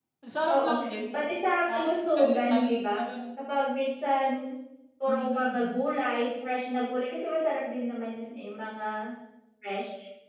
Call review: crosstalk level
present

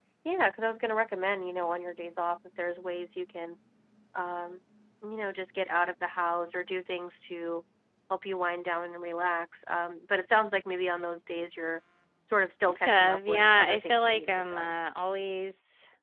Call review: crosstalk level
present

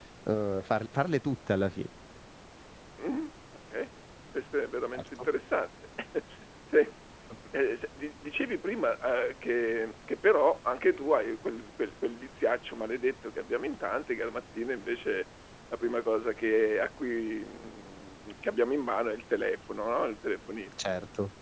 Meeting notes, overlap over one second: none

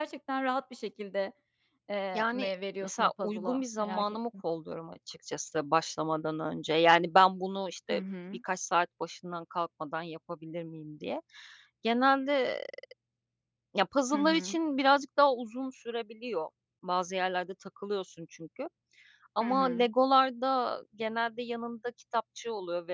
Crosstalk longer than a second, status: present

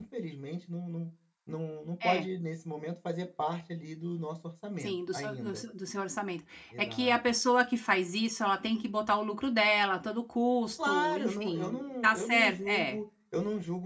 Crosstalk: present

